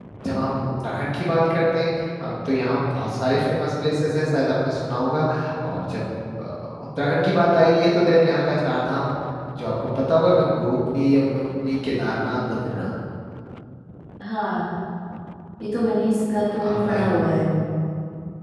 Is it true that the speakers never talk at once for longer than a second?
Yes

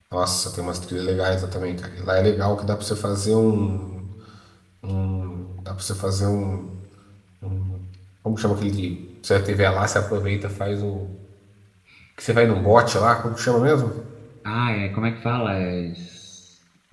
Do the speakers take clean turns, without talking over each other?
Yes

